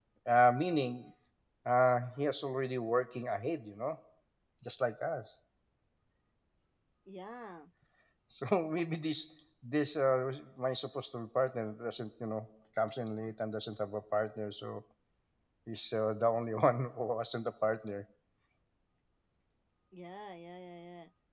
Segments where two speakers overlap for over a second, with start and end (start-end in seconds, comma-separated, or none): none